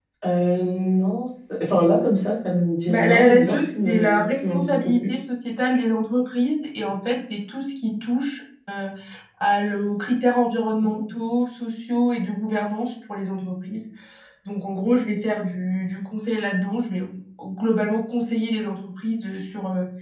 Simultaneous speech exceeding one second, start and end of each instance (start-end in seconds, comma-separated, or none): 2.9-5.1